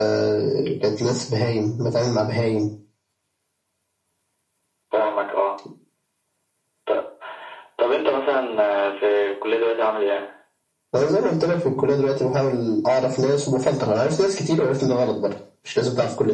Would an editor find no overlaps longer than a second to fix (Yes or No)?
Yes